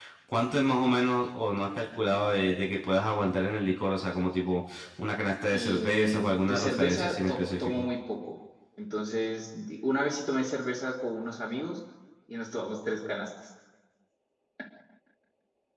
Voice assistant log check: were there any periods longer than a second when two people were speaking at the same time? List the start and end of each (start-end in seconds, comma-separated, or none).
5.5-7.8